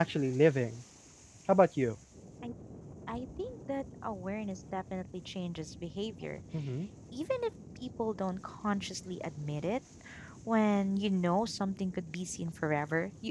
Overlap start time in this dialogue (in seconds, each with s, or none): none